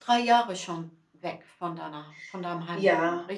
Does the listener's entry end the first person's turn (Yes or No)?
Yes